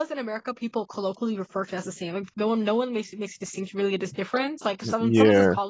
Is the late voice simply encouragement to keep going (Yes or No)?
Yes